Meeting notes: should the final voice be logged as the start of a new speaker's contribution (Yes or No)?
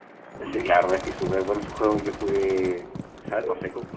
No